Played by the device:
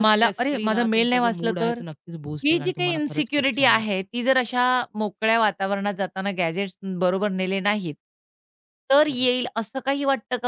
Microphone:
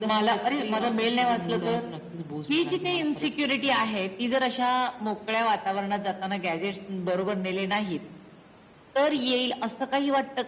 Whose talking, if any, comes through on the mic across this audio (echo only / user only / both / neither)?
echo only